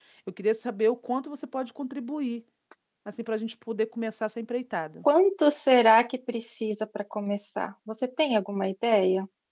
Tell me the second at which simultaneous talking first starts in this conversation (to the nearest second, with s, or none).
none